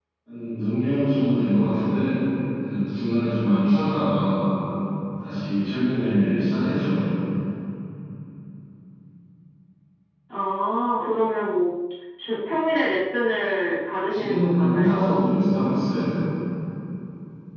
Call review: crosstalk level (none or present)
present